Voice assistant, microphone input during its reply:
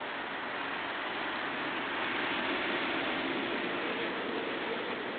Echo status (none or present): none